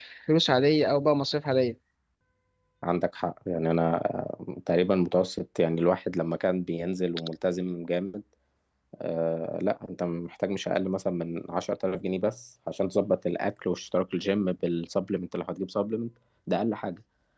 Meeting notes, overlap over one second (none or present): none